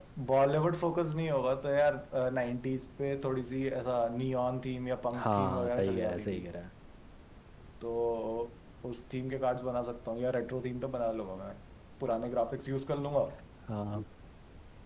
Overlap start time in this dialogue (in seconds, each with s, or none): 5.1 s